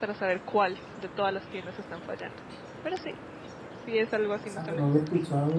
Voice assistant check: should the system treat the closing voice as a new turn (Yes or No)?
Yes